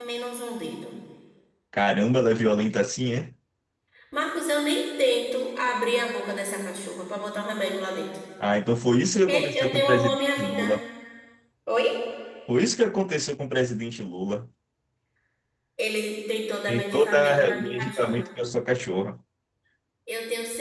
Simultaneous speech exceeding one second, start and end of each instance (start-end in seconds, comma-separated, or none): 9.3-10.7, 16.7-18.2